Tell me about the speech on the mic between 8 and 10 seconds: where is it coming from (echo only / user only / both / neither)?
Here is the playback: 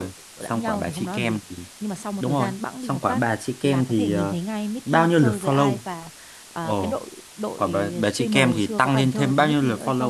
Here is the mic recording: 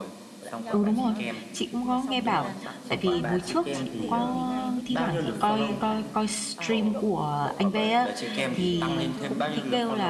both